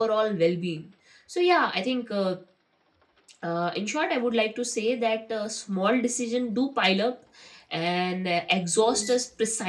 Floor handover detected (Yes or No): No